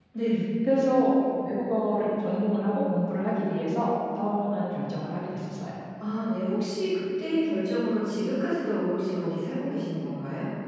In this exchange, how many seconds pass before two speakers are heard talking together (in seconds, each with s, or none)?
none